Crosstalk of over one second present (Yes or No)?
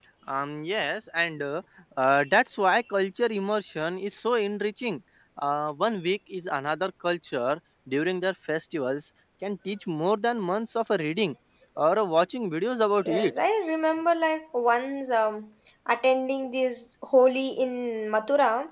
No